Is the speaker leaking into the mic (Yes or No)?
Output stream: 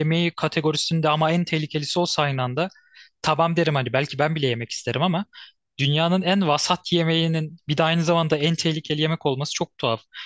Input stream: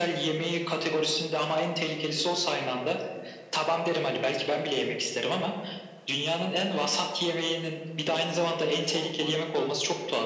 Yes